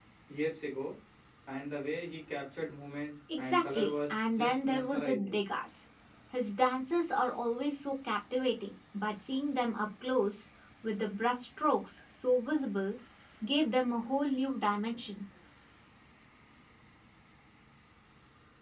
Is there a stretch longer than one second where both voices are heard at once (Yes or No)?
Yes